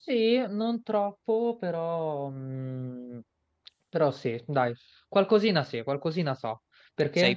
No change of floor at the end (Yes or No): No